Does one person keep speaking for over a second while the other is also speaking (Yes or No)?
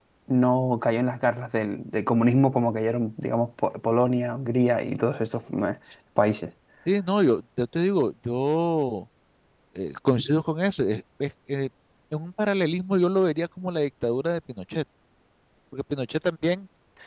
No